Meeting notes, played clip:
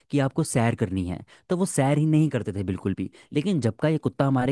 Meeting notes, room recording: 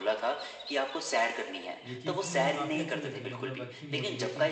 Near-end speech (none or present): present